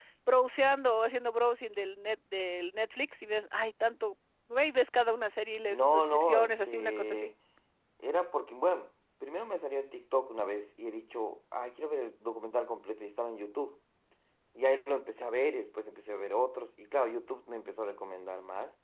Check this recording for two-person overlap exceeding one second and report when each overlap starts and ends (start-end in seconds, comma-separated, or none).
5.7-7.3